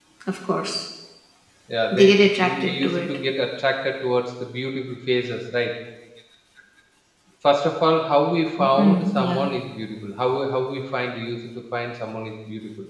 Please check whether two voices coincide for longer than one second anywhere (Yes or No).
Yes